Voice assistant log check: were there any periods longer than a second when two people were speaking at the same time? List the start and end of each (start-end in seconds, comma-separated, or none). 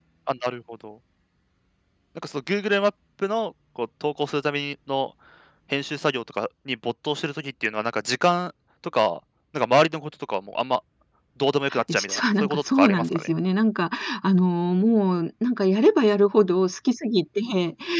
11.9-13.3